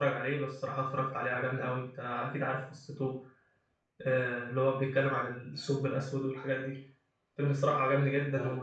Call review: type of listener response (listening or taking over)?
listening